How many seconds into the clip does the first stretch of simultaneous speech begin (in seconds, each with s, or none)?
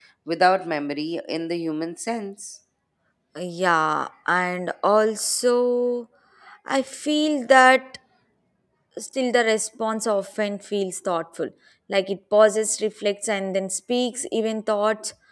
none